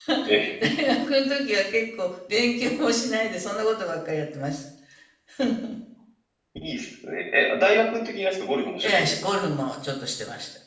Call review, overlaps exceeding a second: none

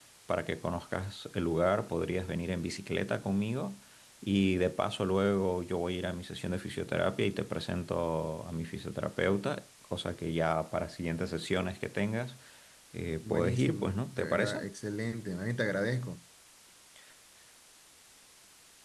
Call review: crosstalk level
present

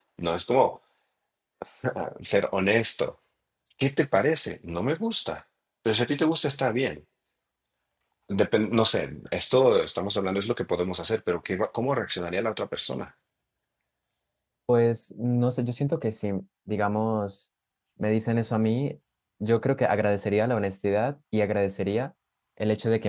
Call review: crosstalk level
none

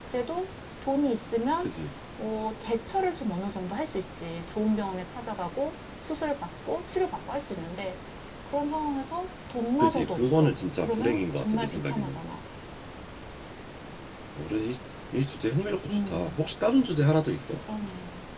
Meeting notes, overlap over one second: present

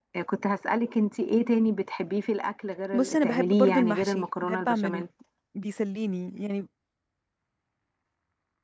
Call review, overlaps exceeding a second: present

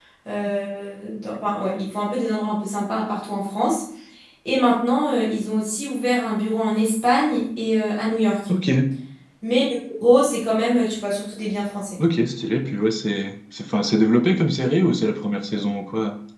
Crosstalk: none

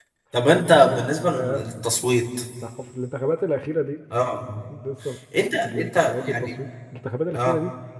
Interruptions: present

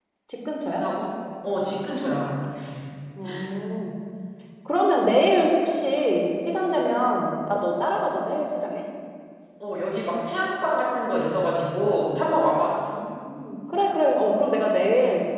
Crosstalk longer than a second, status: none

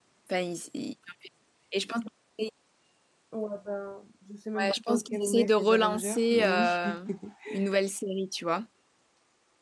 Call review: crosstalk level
present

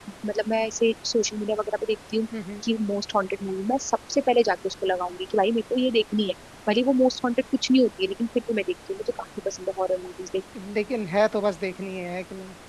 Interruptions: none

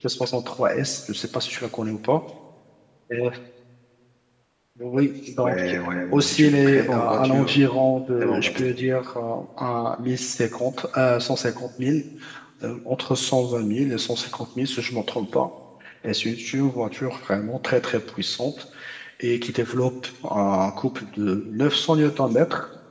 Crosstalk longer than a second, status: present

